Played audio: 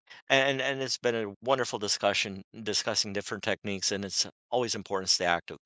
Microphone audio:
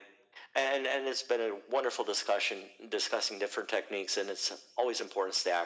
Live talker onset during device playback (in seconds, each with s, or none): none